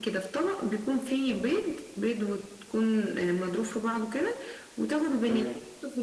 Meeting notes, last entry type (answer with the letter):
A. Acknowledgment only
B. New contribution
A